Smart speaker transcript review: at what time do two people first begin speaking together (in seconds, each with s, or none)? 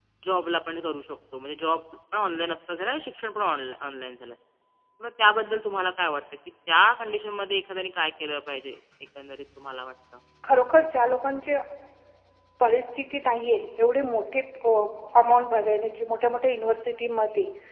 none